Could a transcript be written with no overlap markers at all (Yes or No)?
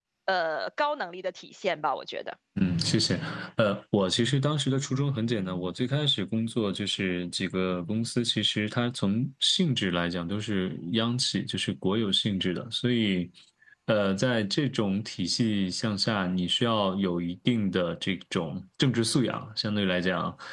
Yes